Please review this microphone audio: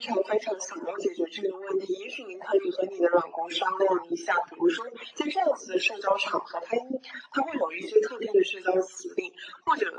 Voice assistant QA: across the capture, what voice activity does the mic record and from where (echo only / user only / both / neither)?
echo only